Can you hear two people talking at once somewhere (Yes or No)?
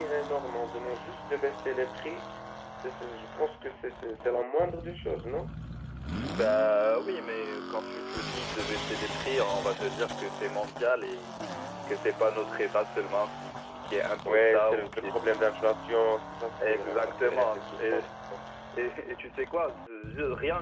Yes